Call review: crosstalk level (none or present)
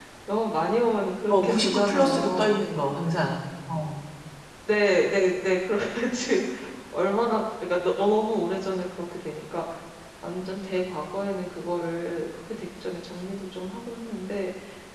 present